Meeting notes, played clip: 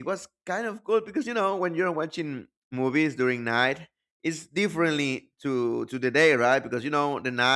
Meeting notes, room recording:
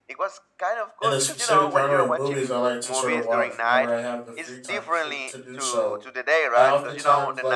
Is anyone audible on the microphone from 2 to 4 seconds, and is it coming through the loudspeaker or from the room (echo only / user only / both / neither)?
both